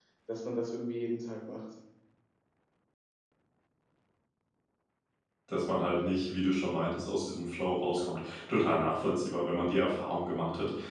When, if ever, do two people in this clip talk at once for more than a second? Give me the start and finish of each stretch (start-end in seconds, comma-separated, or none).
none